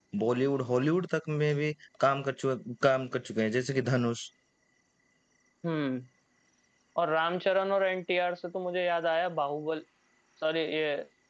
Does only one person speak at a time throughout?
Yes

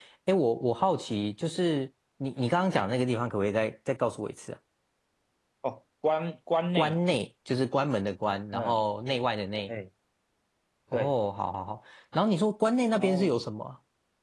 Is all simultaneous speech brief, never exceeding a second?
Yes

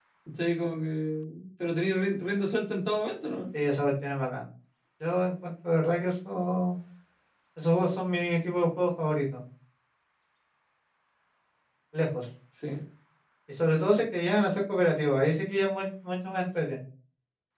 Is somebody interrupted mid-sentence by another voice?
No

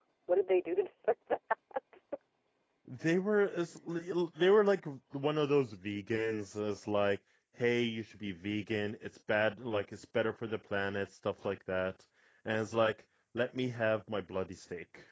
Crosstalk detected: No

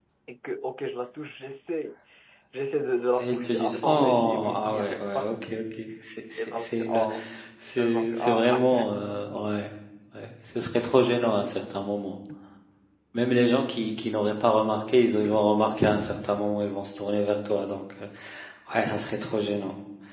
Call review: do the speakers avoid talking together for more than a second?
No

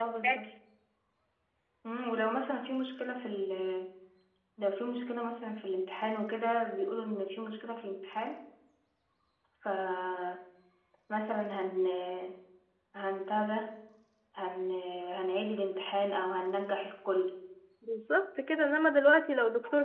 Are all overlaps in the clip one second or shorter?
Yes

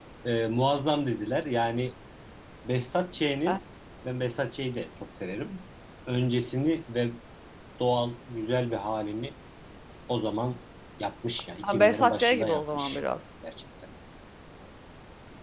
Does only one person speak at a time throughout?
No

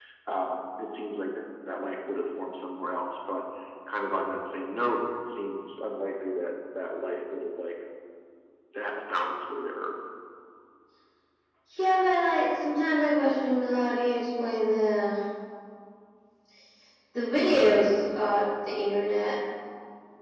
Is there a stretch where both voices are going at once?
No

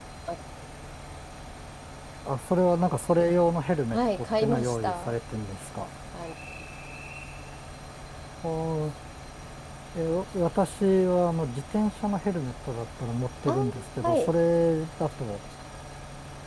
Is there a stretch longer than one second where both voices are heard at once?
Yes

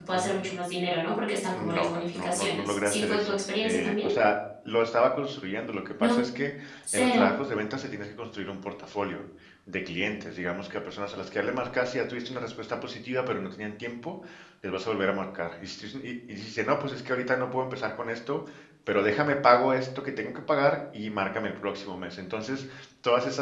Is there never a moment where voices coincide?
No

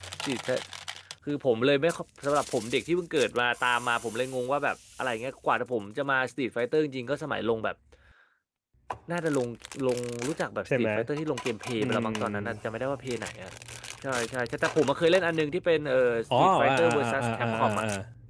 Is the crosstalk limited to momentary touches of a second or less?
No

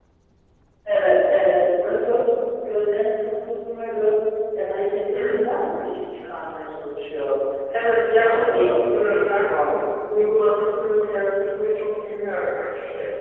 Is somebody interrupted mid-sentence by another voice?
Yes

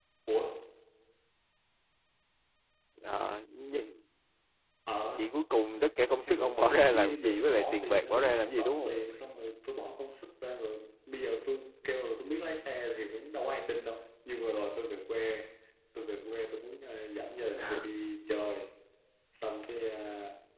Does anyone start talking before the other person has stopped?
Yes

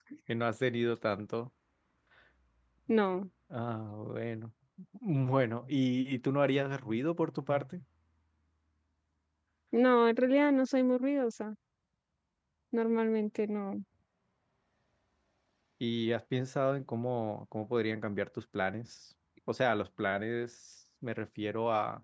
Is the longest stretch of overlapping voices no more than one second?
Yes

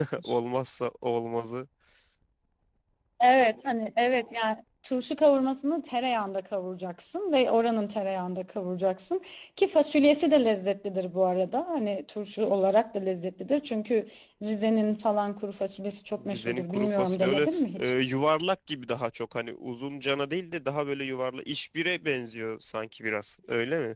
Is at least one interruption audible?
Yes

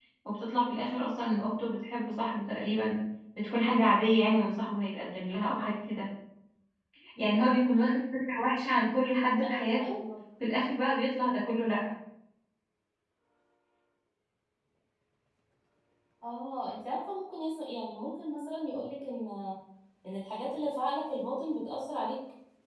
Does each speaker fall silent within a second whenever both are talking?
Yes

